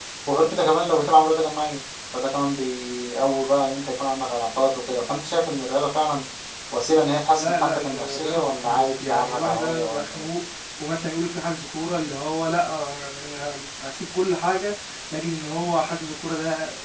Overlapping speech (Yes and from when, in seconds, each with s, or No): Yes, from 7.4 s